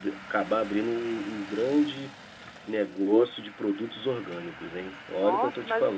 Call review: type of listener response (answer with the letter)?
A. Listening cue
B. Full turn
B